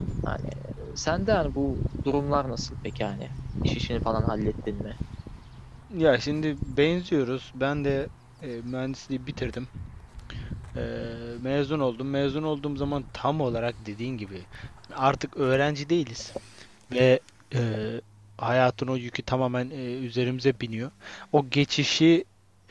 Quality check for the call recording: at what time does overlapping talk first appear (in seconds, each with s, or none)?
none